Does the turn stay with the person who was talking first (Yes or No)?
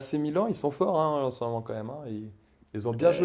No